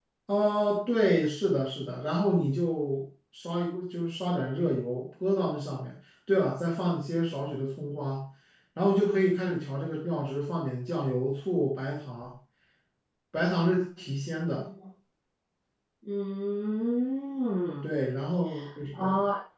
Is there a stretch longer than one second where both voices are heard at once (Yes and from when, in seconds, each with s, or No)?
No